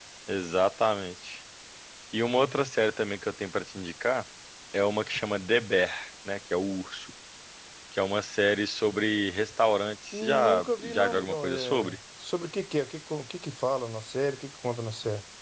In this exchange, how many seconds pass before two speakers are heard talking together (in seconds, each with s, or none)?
10.1 s